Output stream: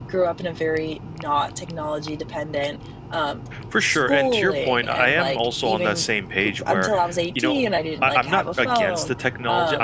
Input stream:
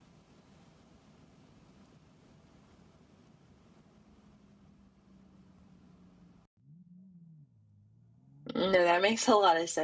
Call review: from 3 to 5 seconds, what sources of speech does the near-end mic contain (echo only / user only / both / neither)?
neither